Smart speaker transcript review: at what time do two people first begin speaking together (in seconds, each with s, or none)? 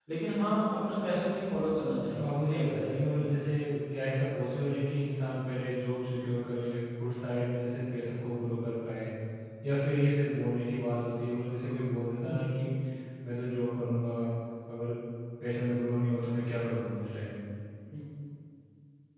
2.1 s